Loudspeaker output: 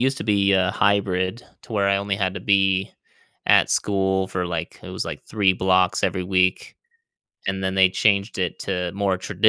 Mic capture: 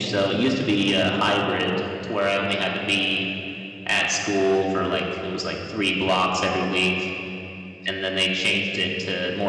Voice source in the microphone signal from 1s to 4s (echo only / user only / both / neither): echo only